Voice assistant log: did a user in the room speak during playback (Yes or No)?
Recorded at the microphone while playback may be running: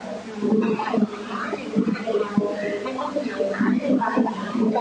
Yes